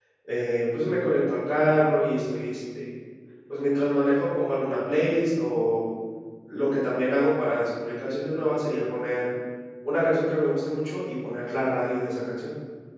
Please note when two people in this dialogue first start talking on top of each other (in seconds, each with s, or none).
none